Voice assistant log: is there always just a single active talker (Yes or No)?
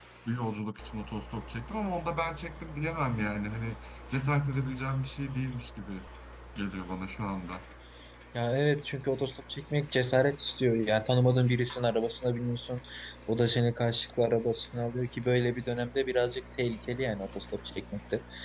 Yes